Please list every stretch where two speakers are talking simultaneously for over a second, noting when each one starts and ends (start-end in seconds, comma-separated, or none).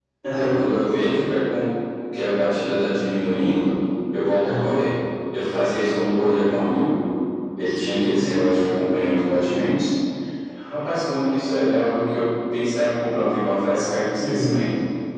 none